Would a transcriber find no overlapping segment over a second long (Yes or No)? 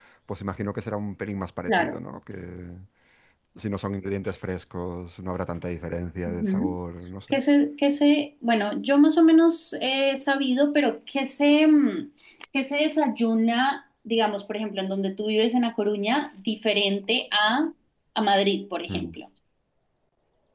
Yes